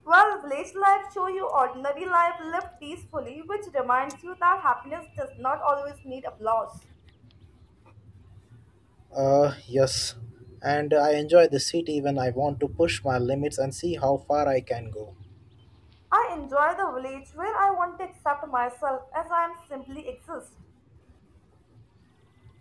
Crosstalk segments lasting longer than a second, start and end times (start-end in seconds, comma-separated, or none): none